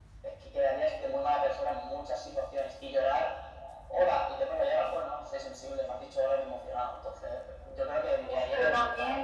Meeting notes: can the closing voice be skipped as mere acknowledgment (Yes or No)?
No